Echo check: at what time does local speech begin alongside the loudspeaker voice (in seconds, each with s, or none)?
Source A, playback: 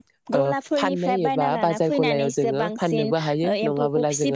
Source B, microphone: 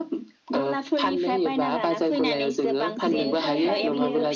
3.1 s